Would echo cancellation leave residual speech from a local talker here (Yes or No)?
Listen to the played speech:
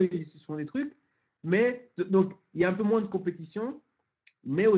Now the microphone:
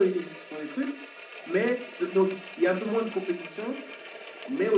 No